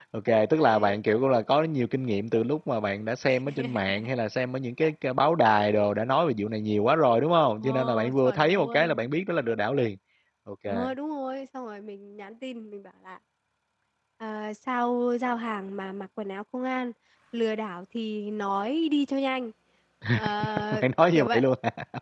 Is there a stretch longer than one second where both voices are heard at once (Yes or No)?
Yes